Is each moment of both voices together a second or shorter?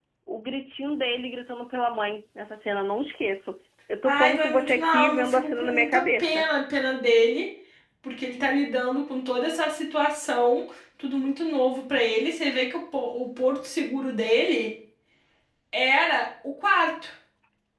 No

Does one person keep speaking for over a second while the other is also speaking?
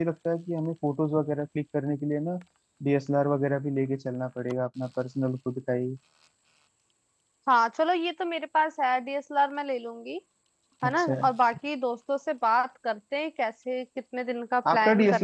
No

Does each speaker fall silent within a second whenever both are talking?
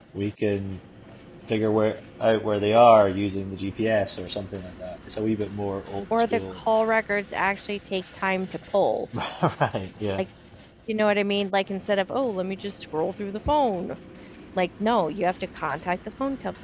Yes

